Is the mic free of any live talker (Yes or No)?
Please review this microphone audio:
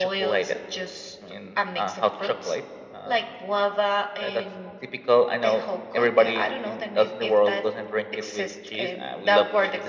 Yes